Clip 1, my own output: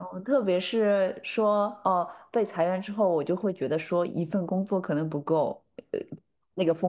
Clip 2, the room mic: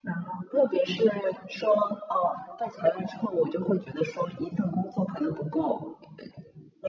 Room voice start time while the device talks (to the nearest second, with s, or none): none